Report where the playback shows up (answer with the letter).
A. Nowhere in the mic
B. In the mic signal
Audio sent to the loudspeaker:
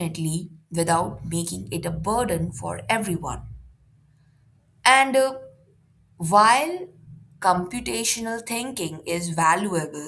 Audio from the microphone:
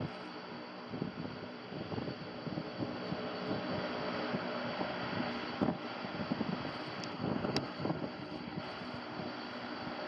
A